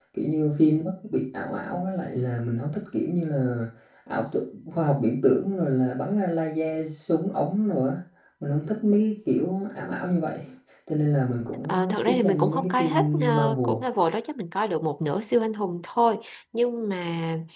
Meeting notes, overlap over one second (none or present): present